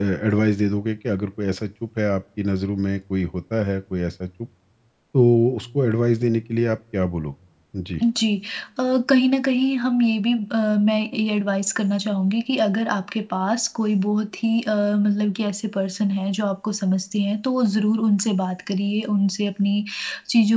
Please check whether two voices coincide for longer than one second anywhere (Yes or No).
No